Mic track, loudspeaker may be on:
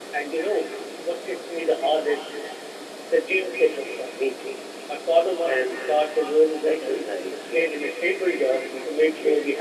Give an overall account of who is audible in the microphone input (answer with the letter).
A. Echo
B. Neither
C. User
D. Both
A